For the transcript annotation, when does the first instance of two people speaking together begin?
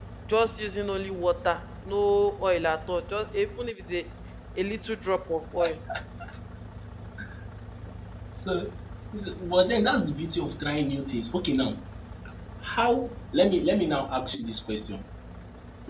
none

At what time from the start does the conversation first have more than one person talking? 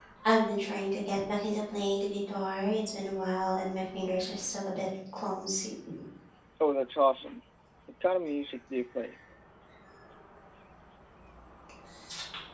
none

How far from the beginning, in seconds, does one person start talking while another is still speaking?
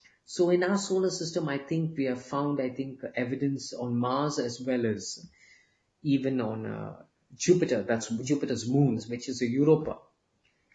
none

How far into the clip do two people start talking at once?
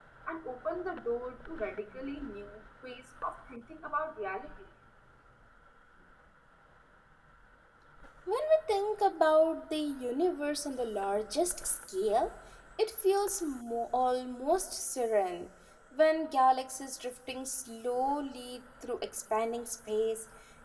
none

